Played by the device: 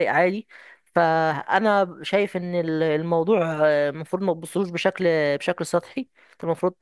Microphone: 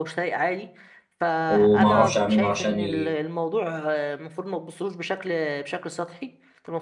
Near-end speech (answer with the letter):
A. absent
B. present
B